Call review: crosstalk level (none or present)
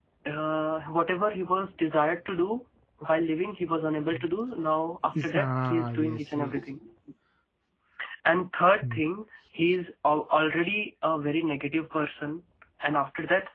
present